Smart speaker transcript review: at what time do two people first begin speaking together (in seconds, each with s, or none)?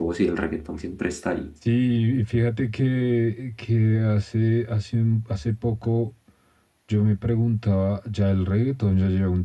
none